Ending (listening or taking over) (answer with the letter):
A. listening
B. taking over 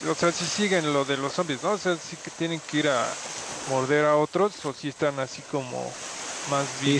B